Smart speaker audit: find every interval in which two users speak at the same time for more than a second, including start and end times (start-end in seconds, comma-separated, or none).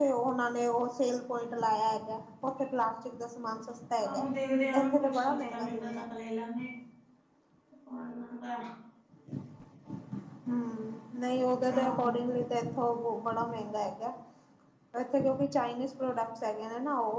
4.8-6.0